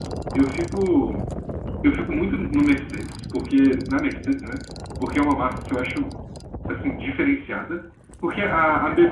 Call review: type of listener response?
listening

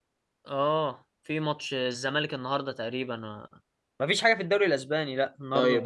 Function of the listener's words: taking over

